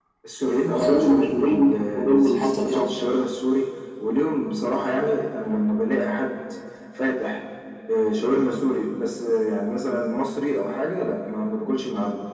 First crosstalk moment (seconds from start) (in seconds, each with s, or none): 0.7 s